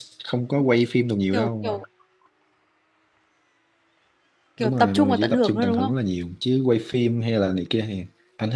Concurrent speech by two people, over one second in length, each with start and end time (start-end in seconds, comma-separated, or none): 4.6-5.9